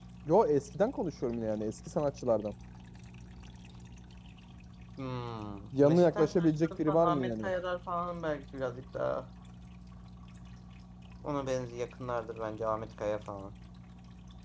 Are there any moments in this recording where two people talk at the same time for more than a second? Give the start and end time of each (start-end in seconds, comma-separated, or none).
5.8-7.5